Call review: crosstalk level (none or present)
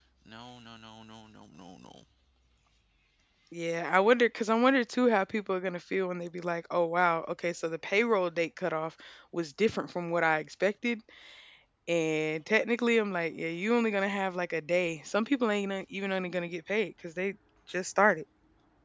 none